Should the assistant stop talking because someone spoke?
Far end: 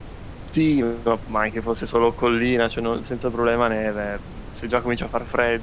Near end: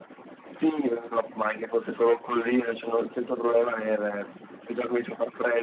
No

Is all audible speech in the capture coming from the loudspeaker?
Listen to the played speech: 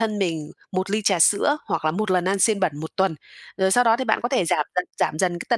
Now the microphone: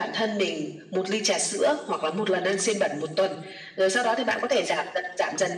Yes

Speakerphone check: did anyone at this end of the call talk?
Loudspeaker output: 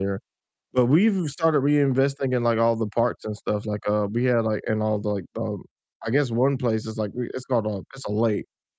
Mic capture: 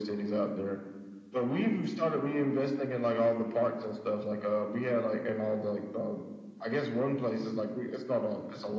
No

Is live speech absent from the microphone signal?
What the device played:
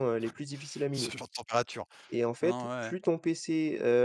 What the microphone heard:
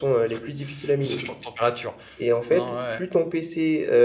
Yes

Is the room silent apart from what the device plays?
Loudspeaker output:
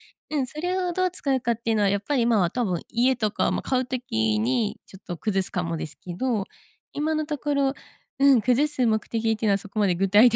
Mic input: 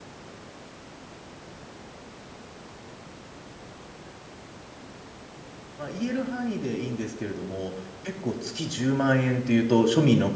No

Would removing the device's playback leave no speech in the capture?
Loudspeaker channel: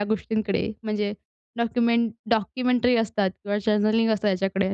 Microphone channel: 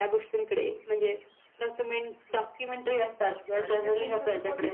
No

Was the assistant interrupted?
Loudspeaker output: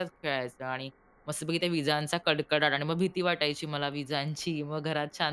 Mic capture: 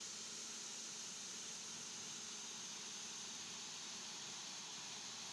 No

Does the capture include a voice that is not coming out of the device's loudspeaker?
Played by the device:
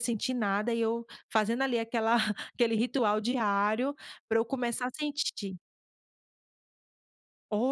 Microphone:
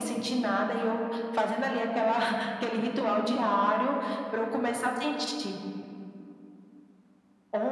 No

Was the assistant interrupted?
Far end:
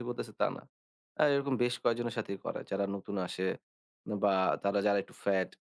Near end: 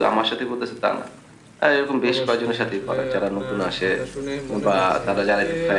Yes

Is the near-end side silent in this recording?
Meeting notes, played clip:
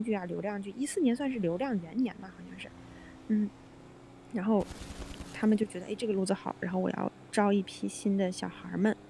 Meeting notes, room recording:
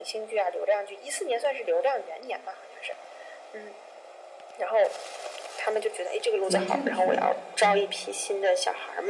No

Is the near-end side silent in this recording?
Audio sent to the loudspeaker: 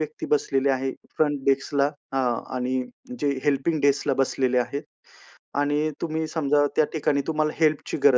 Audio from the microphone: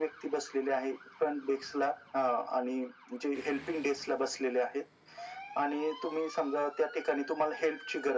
Yes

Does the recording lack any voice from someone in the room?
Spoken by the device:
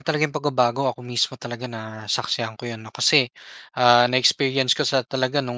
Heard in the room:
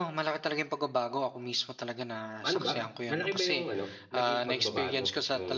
No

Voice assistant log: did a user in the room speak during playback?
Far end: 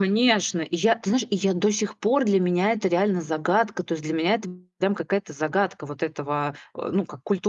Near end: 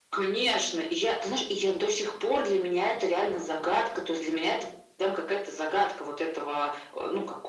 No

